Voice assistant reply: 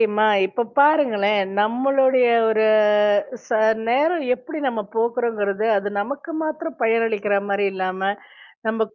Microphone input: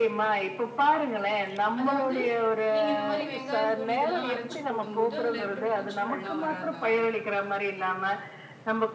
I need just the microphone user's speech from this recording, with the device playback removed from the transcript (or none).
அதாவது, நீங்க இந்த மாரி வெங்காயத்தூள் இதெல்லாம் அரைச்சு போடும்போது, அதுல இருக்கிற பூச்சிகள்லாம் வராதா?